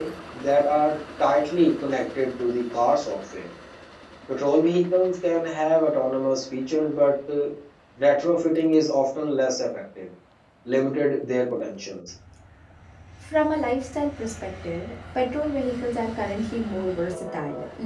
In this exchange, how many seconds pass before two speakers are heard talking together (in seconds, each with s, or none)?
none